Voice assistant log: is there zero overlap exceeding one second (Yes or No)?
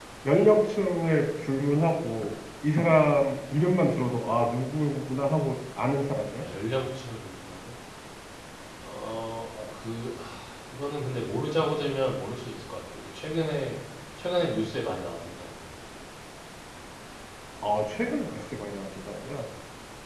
Yes